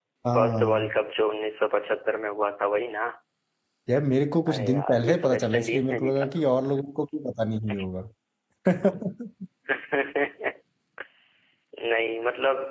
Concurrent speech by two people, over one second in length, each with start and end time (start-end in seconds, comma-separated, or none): 4.5-6.3